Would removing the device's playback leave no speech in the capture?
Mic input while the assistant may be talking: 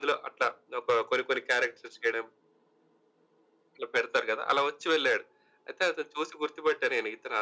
Yes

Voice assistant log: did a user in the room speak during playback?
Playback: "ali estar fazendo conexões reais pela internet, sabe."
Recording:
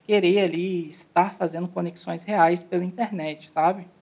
No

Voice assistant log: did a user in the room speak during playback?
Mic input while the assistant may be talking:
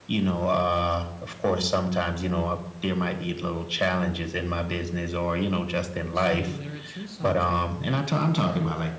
Yes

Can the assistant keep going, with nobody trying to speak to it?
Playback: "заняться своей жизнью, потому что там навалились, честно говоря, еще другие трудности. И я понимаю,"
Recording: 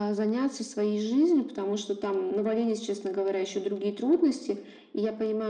Yes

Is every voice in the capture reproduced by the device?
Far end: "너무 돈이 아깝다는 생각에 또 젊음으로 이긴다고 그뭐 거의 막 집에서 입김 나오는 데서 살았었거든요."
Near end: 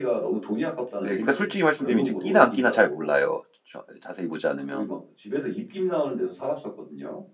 No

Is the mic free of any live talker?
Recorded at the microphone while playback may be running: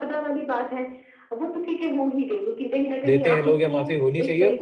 No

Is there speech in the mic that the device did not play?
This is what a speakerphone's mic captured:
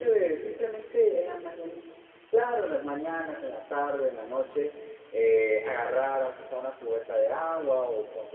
No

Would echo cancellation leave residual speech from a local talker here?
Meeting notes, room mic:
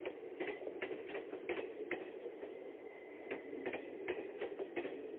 No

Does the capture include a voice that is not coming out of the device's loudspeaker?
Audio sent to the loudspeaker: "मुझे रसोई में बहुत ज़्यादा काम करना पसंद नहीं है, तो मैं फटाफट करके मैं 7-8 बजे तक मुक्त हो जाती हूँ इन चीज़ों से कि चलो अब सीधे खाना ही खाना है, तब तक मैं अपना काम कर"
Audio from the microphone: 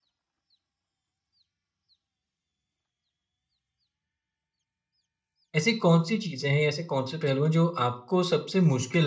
Yes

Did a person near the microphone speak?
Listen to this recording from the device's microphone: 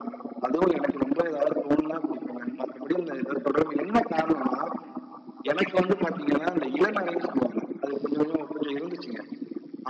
No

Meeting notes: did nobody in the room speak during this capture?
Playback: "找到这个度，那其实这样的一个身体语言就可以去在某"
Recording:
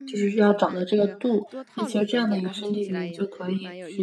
No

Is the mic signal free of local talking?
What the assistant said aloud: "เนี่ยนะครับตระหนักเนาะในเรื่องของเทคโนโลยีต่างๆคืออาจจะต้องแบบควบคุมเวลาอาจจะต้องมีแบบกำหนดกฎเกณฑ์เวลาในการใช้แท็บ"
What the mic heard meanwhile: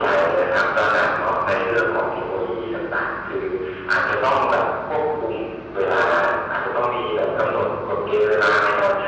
Yes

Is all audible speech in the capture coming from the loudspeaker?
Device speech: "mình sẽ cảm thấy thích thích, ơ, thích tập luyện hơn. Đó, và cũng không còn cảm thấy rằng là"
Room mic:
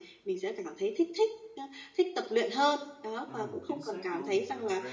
No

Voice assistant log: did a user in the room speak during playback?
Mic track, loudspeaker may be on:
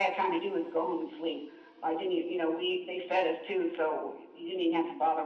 No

